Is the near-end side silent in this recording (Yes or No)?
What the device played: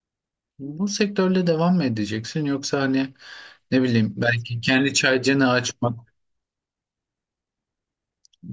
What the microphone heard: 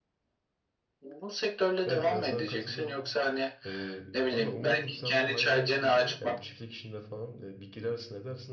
No